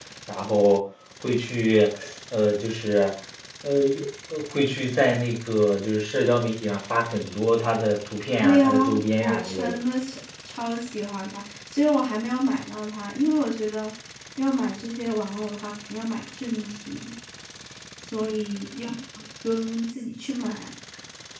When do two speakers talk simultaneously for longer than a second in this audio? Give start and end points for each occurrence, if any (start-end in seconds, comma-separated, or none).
8.4-9.8